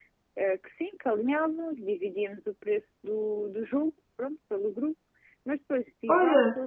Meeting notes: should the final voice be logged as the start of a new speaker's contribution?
No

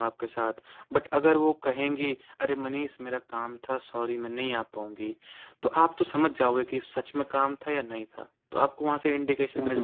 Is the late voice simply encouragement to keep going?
No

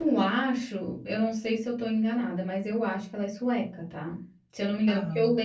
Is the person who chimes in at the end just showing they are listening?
Yes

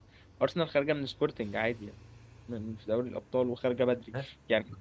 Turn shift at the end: No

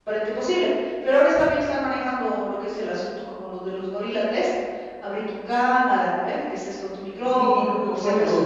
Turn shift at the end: Yes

